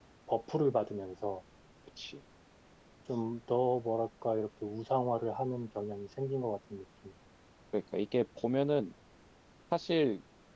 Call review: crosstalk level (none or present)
none